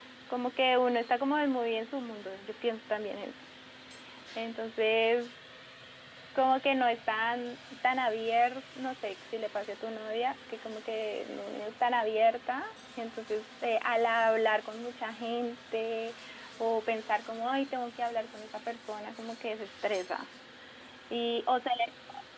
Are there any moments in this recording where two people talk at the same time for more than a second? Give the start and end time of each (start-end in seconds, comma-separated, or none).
none